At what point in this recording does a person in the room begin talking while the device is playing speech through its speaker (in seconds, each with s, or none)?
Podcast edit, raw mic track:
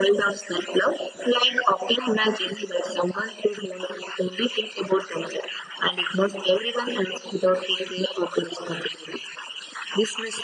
none